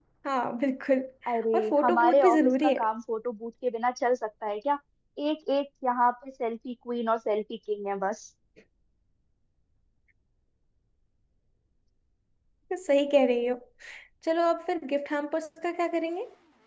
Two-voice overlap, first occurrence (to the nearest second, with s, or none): 2 s